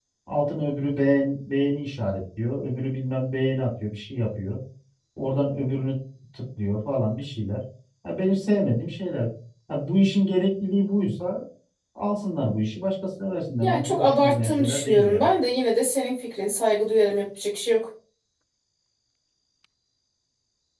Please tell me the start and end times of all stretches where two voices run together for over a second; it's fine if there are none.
13.6-15.3

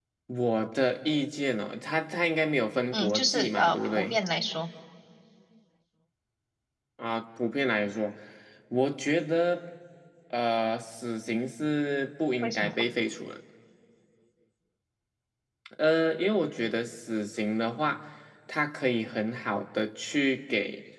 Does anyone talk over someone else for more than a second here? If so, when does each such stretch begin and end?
2.9-4.2

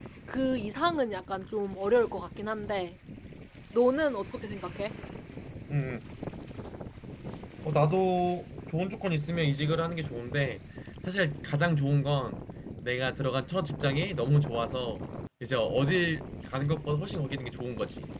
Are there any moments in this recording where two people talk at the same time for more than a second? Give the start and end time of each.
none

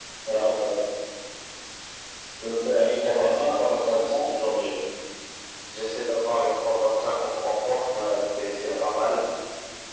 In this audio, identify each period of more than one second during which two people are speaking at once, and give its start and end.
2.6-4.3

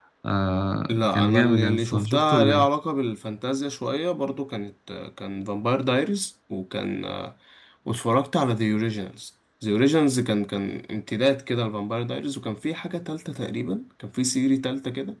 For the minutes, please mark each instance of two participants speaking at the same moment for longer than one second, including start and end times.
0.9-2.7

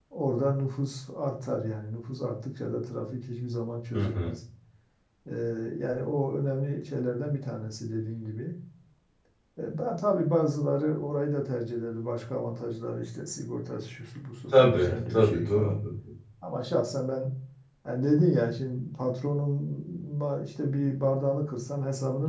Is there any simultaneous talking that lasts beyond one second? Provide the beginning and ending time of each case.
14.5-15.8

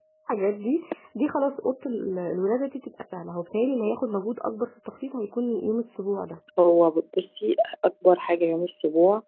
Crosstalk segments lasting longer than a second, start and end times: none

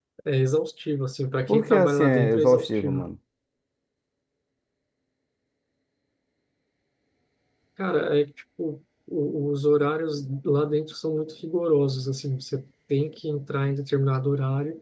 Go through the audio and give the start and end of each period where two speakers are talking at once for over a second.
1.5-3.1

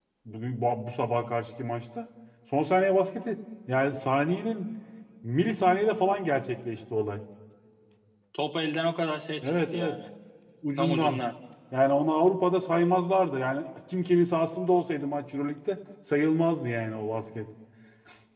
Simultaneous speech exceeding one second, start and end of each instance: none

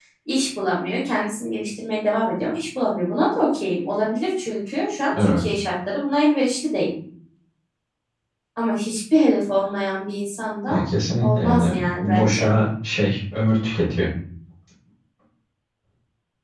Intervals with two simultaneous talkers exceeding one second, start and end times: 11.2-12.5

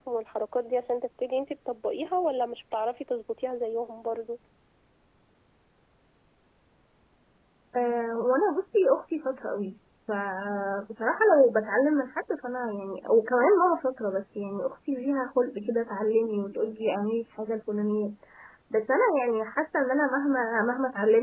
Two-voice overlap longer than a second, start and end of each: none

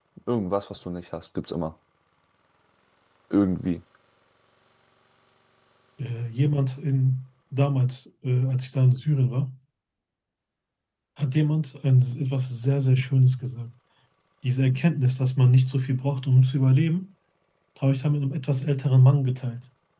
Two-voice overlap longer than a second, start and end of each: none

